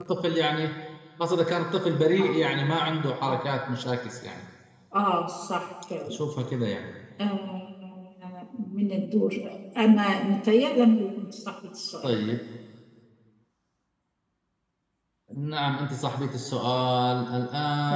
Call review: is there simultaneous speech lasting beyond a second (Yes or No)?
No